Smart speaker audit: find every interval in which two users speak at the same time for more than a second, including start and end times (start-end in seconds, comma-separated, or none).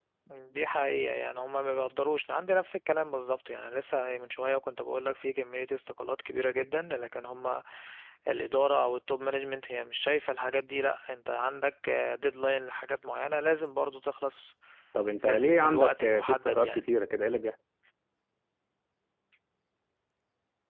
15.3-16.9